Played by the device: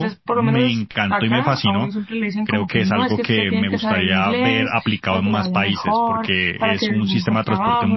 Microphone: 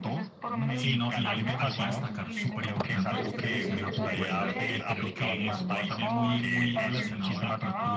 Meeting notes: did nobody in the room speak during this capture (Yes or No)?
No